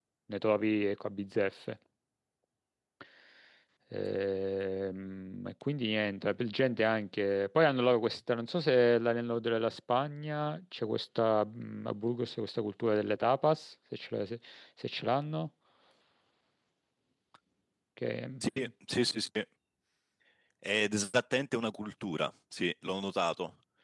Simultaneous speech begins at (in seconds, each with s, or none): none